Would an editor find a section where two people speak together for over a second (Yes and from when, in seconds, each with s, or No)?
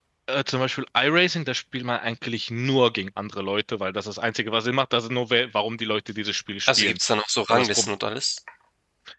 No